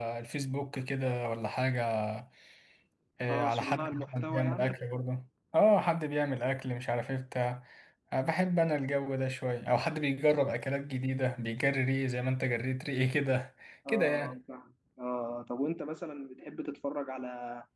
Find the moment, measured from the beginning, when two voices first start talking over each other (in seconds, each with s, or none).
3.3 s